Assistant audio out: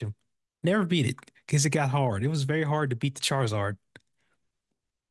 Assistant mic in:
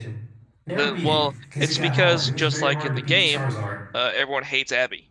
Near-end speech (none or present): present